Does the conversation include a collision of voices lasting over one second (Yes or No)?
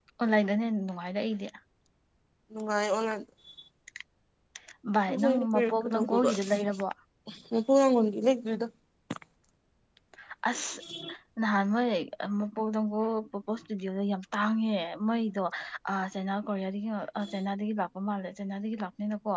Yes